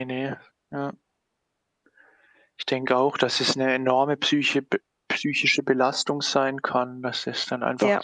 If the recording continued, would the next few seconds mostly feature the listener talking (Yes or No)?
No